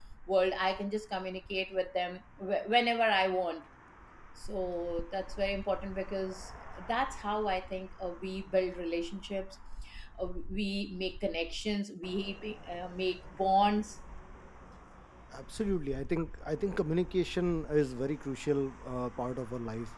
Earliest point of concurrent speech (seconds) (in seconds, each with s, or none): none